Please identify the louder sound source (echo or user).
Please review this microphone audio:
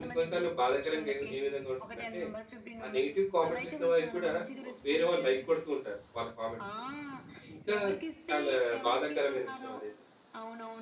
user